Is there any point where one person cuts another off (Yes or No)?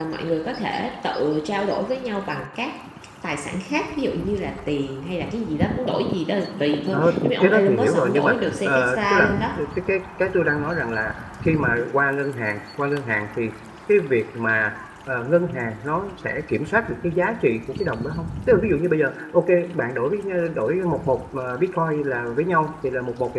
Yes